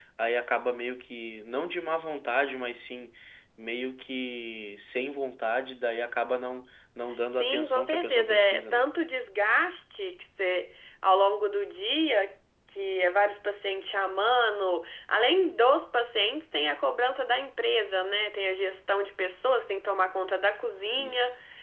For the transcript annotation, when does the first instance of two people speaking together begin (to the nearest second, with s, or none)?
7 s